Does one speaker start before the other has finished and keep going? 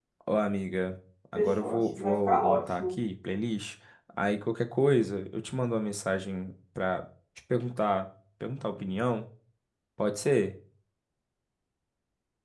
Yes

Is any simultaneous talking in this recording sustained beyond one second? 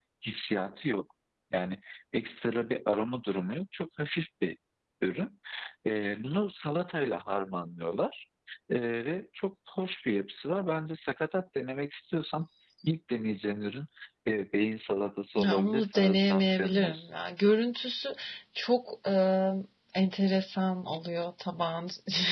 Yes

